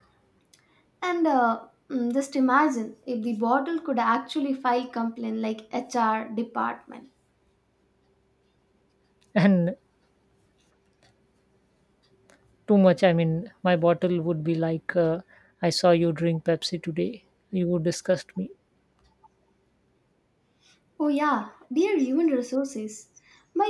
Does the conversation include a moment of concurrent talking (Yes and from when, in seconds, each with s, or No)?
No